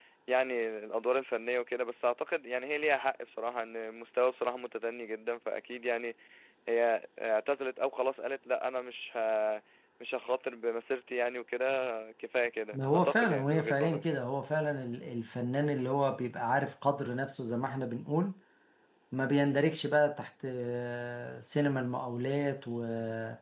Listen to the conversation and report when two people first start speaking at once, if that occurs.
12.7 s

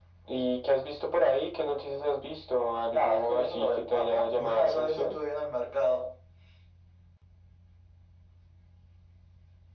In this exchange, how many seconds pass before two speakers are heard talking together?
2.9 s

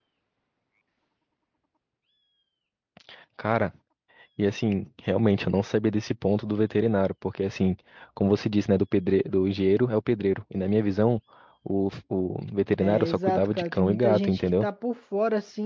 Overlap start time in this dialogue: 12.8 s

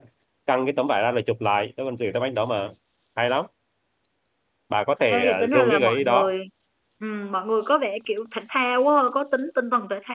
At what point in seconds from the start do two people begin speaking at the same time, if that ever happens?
5.1 s

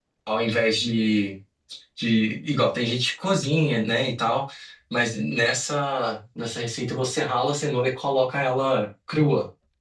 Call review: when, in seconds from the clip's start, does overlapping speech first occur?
none

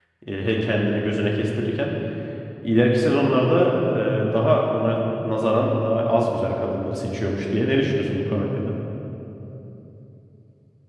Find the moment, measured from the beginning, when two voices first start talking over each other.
none

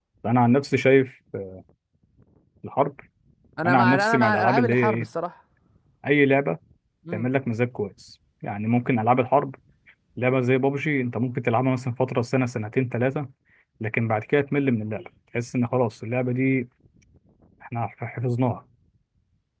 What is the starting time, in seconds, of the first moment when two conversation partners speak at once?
3.6 s

